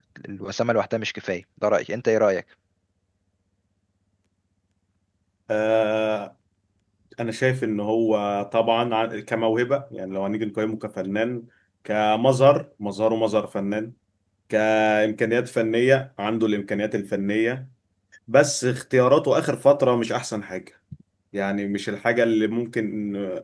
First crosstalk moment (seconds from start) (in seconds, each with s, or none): none